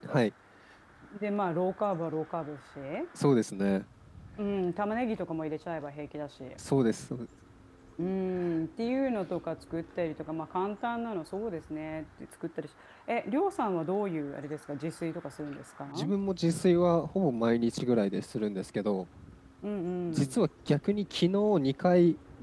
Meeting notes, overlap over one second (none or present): none